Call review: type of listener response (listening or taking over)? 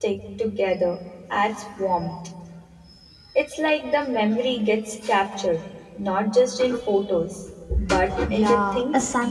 taking over